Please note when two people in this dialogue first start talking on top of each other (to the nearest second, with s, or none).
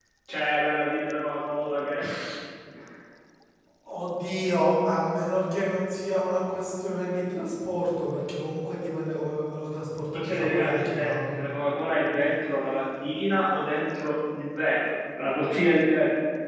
10 s